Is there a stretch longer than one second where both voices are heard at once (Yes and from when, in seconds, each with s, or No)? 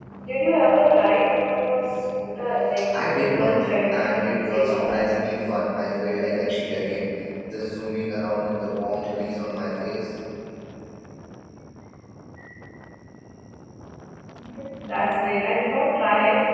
Yes, from 2.9 s